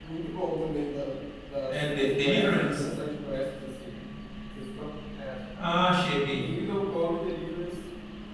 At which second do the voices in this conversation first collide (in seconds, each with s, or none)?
1.7 s